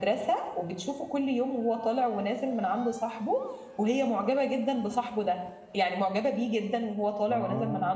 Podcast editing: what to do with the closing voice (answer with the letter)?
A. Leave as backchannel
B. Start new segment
A